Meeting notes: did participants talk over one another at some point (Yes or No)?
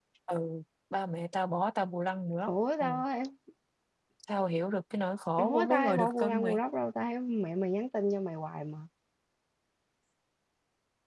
Yes